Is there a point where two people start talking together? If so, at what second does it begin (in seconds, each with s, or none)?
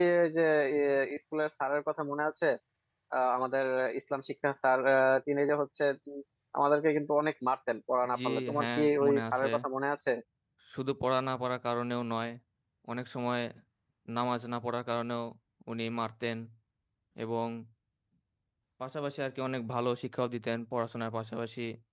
8.1 s